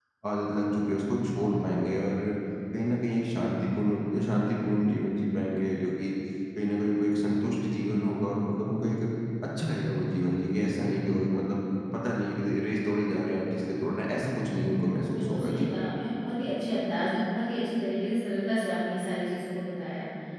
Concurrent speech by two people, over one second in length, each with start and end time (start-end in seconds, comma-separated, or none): none